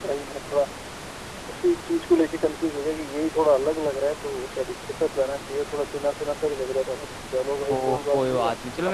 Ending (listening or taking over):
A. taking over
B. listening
A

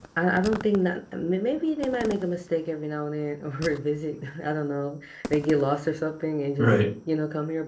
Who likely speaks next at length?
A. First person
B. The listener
A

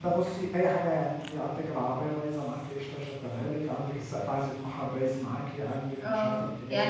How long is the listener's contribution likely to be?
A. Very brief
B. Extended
B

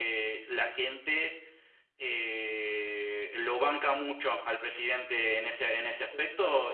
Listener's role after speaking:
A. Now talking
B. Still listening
A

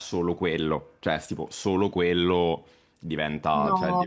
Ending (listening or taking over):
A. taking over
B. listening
B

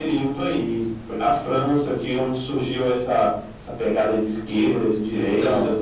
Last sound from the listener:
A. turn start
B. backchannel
A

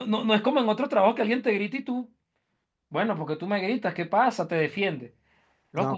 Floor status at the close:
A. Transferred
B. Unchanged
B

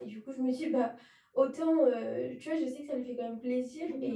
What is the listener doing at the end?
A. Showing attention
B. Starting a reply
A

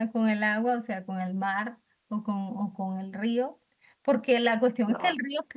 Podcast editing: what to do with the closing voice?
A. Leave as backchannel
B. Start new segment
A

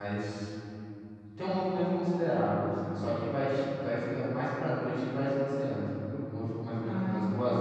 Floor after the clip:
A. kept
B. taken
A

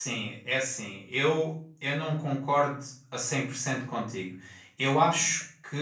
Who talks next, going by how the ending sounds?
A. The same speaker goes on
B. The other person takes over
A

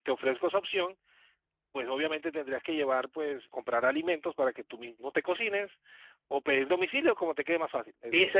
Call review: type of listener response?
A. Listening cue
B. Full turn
B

